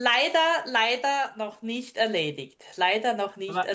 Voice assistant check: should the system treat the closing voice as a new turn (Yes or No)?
Yes